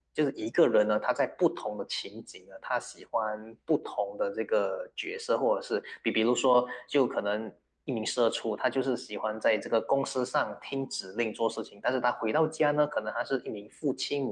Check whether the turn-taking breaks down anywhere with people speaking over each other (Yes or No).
No